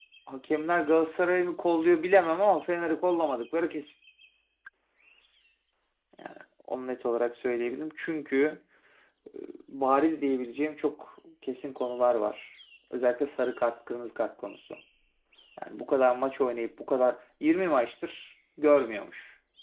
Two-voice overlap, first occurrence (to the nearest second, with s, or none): none